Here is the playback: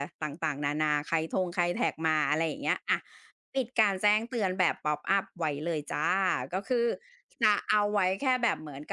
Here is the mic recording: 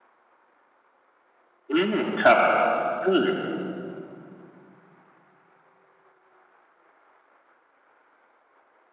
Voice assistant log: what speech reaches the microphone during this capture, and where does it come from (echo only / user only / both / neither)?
user only